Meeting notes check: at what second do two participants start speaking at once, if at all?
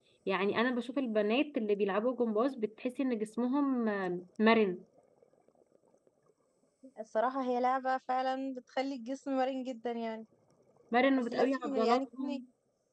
11.2 s

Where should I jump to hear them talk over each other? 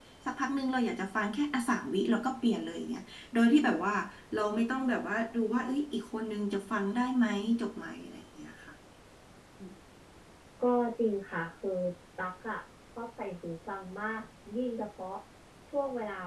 none

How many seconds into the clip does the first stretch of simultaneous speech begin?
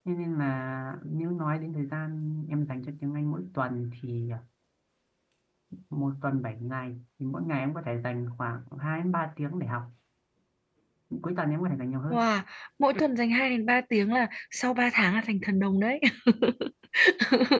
none

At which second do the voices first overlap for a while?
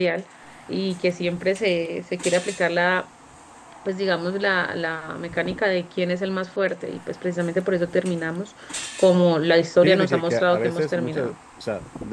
9.8 s

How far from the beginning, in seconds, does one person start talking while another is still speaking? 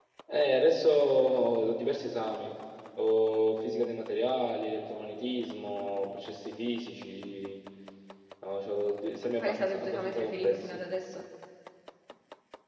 9.4 s

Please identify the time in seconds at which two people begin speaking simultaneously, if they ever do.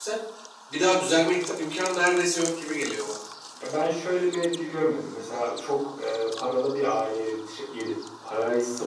none

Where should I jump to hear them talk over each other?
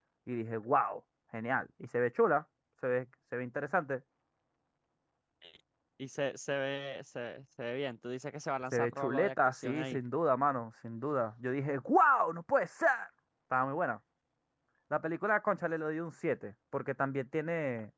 8.7 s

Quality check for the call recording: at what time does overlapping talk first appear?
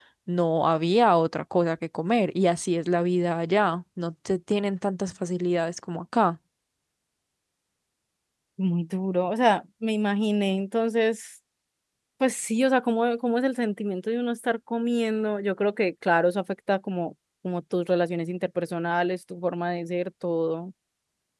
none

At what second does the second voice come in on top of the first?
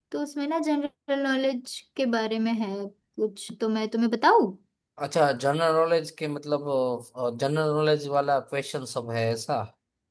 none

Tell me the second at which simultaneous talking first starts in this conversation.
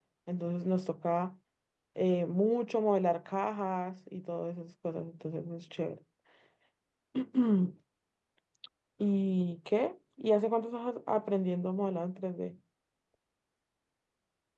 none

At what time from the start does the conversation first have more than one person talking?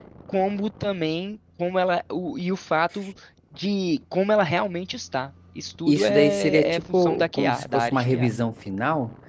5.9 s

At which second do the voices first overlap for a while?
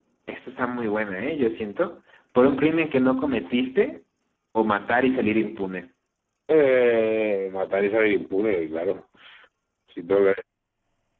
none

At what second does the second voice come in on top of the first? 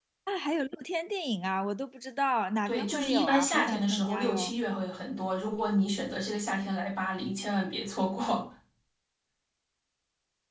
2.7 s

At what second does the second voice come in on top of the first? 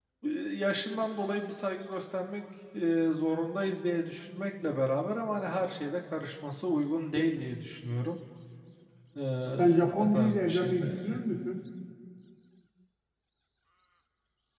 9.9 s

